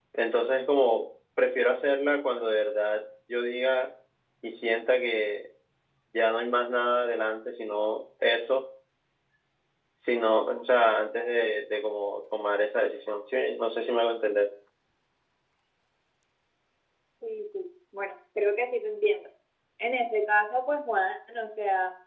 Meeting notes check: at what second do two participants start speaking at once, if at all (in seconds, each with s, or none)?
none